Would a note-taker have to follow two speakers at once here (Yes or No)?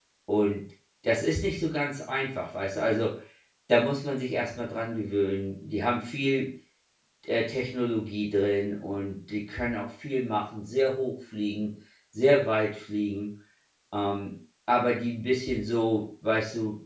No